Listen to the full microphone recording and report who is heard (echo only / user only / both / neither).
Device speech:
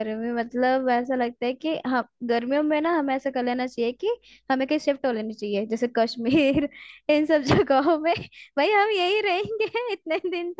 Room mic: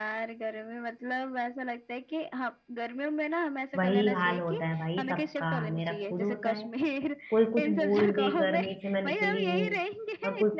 both